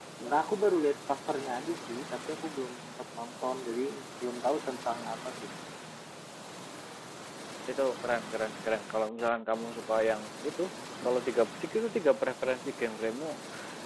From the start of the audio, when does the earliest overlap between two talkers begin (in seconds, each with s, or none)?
none